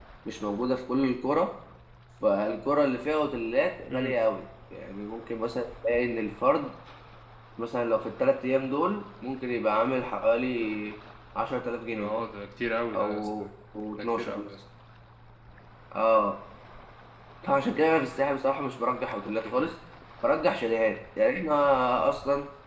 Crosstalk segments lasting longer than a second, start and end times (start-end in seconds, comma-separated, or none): none